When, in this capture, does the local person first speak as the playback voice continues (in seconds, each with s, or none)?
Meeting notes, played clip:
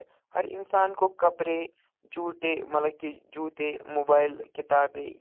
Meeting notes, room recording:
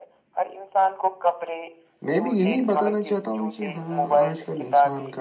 2.0 s